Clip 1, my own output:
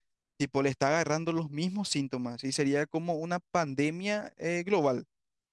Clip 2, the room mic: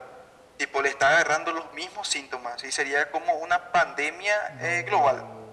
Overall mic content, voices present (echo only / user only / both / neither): both